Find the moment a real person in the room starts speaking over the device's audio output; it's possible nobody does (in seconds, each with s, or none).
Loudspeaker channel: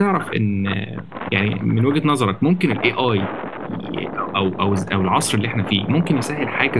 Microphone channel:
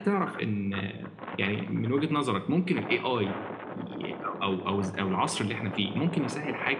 none